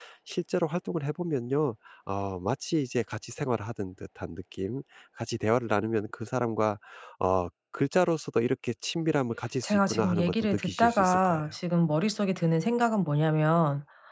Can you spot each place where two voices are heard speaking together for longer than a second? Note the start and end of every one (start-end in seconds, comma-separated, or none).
9.6-11.4